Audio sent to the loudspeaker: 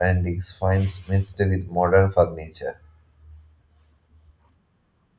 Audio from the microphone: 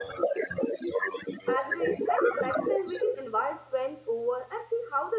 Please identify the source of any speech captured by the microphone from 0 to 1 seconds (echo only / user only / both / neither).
echo only